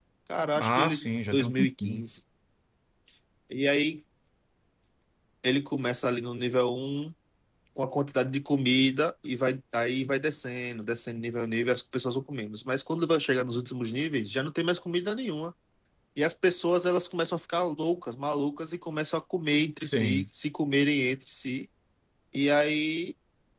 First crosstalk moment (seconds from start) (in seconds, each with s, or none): 0.6 s